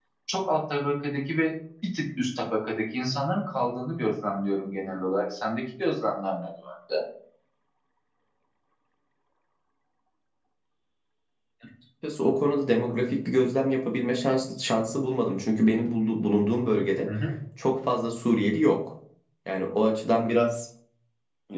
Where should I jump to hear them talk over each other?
none

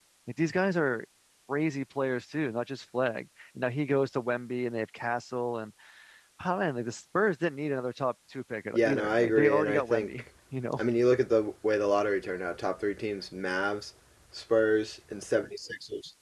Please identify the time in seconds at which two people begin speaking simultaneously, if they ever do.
9 s

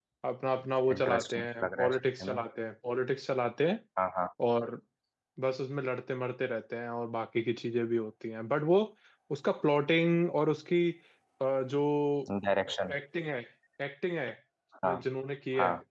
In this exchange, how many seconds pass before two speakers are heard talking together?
1 s

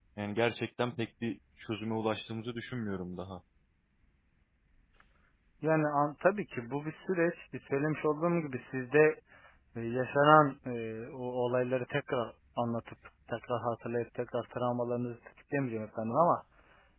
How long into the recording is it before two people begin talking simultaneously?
none

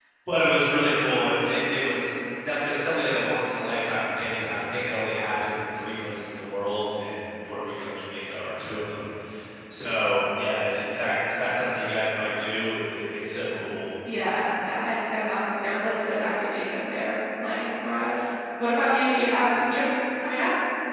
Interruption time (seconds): none

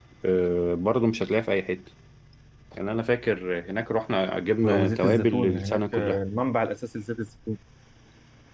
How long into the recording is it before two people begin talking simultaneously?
5 s

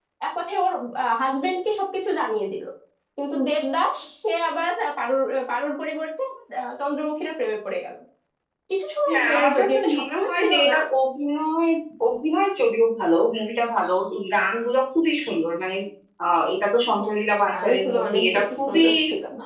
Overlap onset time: 9 s

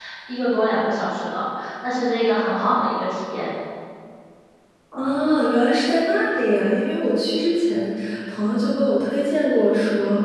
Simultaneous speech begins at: none

